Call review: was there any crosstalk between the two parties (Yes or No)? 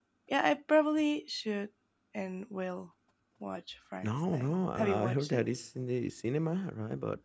Yes